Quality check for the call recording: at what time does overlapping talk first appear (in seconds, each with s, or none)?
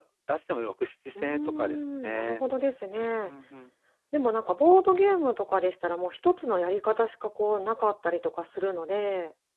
1.2 s